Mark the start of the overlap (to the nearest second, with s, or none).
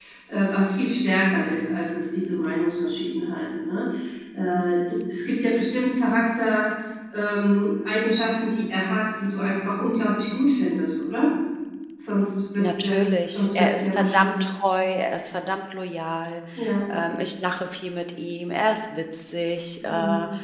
13 s